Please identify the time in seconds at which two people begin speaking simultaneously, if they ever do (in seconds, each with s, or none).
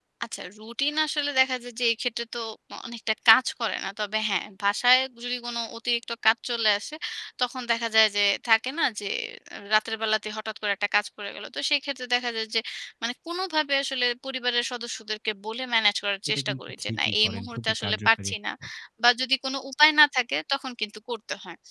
16.3 s